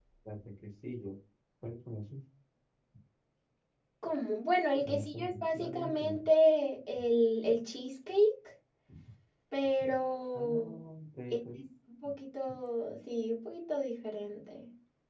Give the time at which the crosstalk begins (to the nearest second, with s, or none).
5 s